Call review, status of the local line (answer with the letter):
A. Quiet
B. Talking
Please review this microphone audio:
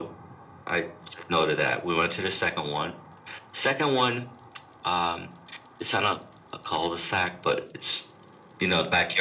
A